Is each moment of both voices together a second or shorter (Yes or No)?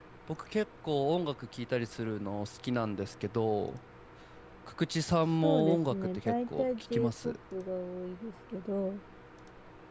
No